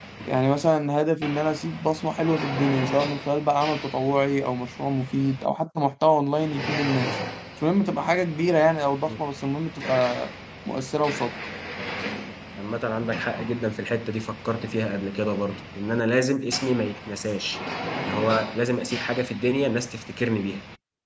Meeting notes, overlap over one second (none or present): none